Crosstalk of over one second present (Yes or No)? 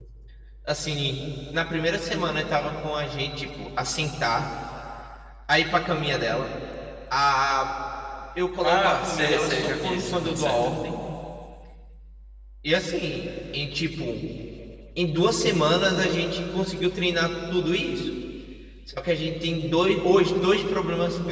Yes